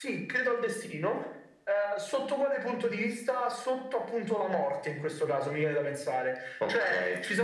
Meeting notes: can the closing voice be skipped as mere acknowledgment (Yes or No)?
Yes